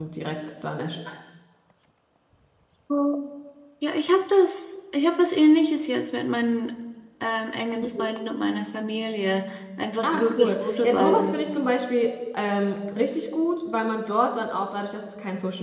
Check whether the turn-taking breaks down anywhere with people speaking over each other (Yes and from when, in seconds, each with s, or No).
Yes, from 10.0 s